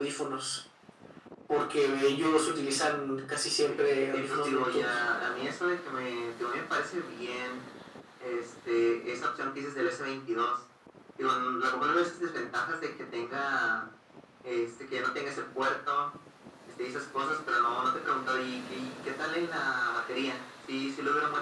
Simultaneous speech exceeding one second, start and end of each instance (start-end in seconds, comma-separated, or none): 3.7-5.0